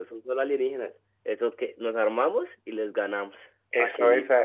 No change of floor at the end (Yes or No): No